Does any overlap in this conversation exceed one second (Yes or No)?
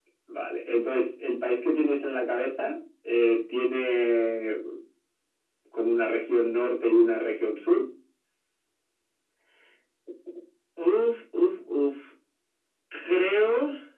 No